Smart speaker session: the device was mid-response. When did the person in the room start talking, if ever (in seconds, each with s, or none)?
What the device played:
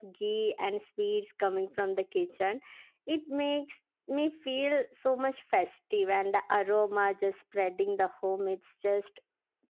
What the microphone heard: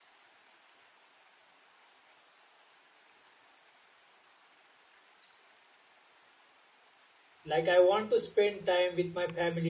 7.4 s